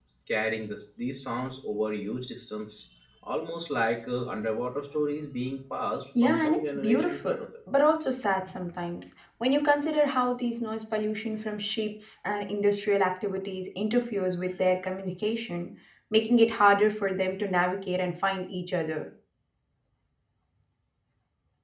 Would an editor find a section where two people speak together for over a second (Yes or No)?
Yes